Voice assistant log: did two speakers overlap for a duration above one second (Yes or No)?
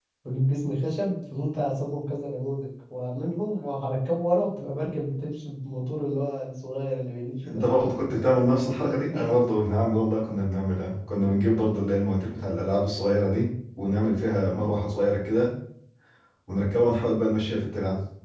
No